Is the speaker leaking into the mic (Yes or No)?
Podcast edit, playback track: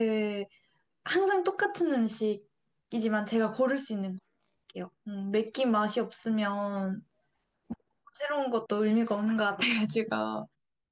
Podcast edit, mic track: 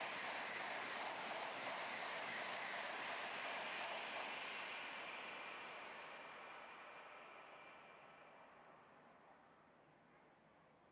No